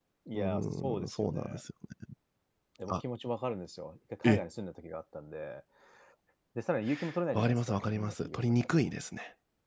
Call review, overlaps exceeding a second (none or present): present